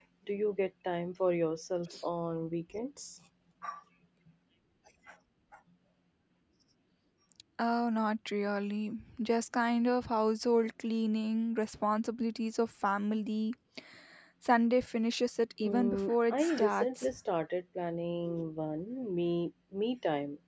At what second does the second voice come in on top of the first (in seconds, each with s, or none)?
15.6 s